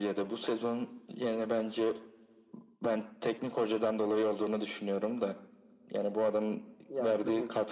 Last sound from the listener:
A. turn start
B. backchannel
A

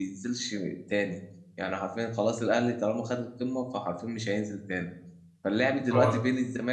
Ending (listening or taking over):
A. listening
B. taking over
A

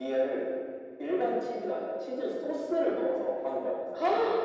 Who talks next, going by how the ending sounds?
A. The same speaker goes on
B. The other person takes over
B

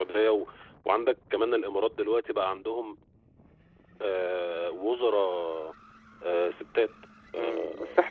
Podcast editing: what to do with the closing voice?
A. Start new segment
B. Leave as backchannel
A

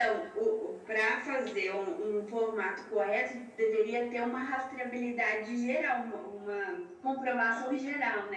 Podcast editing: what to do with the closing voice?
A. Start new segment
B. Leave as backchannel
B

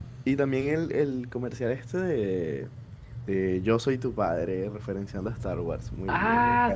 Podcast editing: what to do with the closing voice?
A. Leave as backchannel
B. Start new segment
B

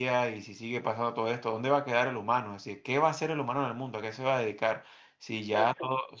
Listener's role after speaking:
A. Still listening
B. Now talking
A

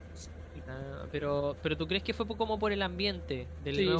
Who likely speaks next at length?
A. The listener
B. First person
A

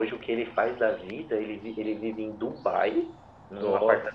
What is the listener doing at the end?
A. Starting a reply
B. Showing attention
B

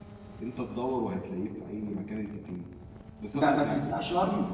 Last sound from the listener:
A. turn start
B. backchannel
A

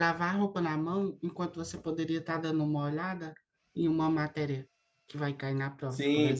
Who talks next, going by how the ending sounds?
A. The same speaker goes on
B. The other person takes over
B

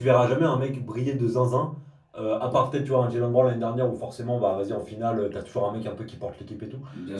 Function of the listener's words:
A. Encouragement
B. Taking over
A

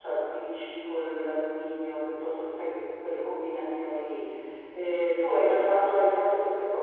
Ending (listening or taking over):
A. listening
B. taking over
A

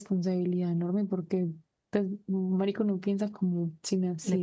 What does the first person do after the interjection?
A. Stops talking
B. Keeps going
A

